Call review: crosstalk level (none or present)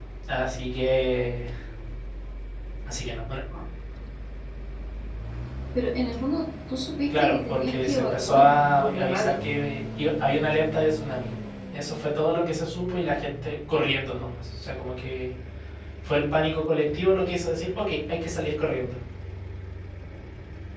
present